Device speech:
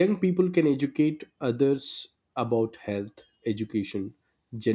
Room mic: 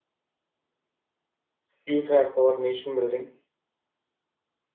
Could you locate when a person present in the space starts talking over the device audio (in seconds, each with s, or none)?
1.8 s